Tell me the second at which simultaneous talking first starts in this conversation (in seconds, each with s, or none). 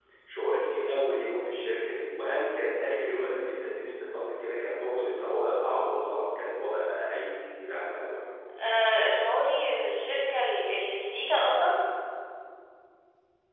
none